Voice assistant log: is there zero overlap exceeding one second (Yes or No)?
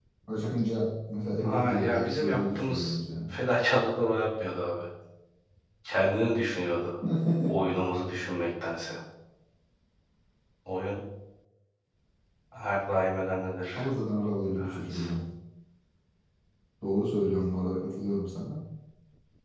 No